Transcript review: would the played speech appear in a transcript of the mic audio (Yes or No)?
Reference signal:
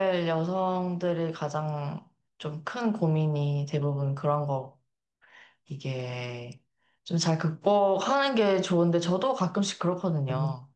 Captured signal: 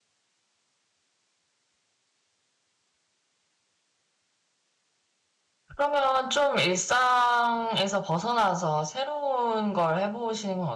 No